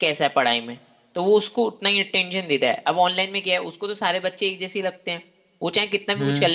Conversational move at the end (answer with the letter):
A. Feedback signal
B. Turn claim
A